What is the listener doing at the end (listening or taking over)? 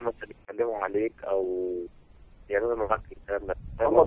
taking over